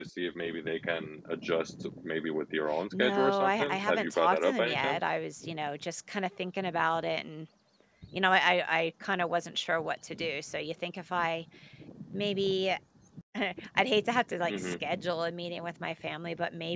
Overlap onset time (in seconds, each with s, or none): 2.9 s